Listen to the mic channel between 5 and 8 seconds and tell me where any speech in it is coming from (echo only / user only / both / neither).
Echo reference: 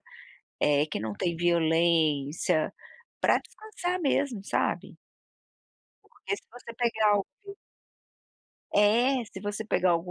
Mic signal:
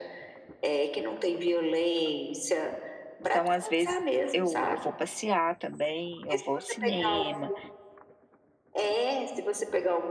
both